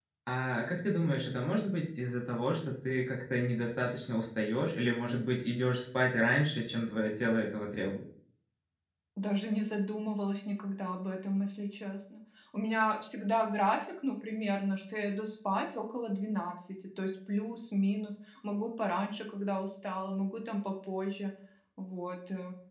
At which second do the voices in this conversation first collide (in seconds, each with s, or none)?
none